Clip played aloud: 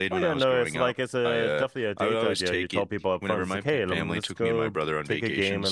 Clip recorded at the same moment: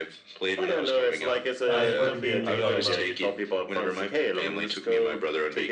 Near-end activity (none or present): present